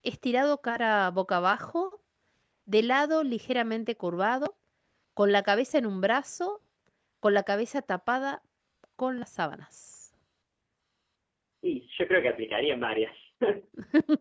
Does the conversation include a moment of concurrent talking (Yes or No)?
No